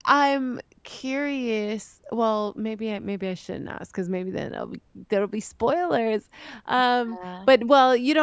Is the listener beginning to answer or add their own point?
No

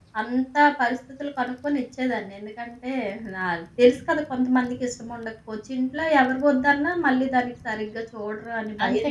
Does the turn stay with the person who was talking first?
No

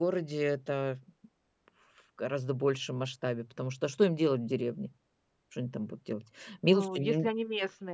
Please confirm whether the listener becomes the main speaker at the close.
Yes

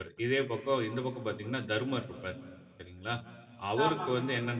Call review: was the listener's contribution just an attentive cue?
Yes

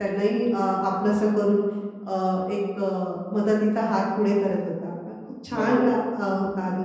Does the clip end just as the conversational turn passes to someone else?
No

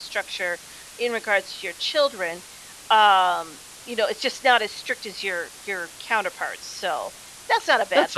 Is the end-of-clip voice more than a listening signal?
Yes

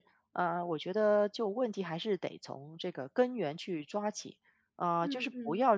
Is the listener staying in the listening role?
Yes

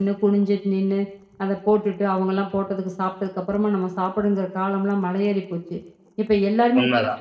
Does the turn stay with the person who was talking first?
Yes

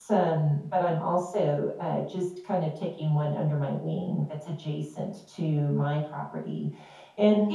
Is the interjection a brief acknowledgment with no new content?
Yes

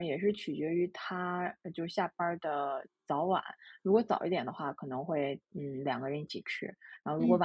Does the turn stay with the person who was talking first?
Yes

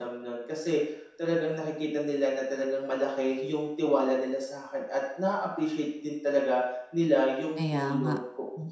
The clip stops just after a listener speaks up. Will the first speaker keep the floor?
Yes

